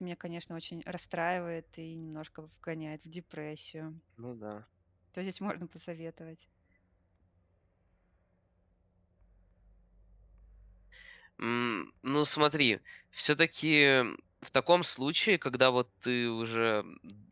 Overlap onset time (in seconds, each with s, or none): none